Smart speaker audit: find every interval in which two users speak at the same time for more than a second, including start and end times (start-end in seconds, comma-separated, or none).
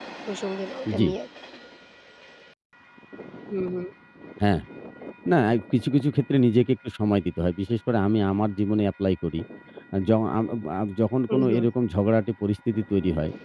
none